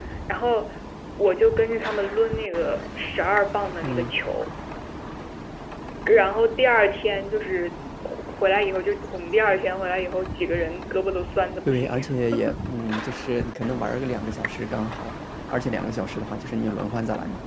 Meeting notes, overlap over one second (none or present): none